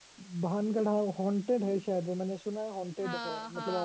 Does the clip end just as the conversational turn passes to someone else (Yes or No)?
No